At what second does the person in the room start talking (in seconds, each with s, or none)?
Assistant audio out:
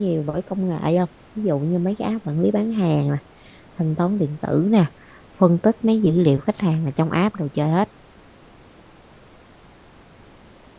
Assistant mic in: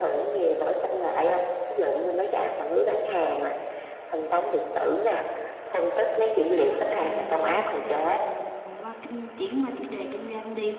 7.0 s